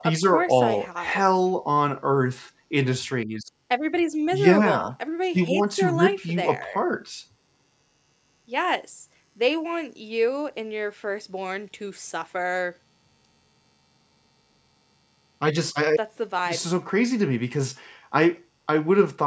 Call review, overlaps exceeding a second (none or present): present